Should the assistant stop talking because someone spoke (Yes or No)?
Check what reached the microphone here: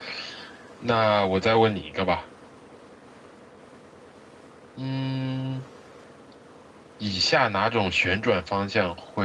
Yes